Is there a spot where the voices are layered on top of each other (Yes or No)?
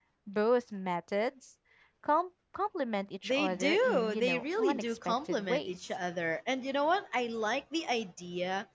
Yes